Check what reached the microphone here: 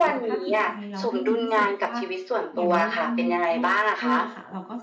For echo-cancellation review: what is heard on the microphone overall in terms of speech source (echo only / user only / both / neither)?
both